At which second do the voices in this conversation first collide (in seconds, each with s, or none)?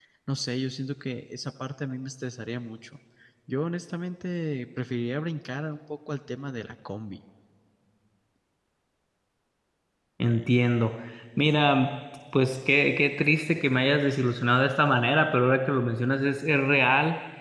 none